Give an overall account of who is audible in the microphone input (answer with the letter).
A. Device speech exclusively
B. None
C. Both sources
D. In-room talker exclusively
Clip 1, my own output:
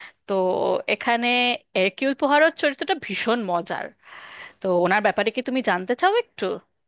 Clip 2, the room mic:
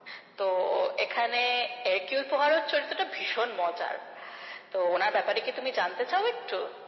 A